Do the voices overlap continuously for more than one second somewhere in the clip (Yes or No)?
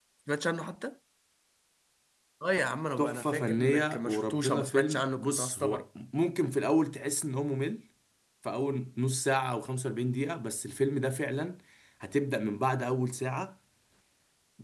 Yes